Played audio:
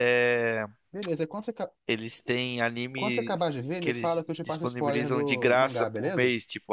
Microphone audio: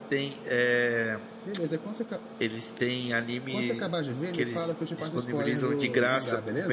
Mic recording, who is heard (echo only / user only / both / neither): echo only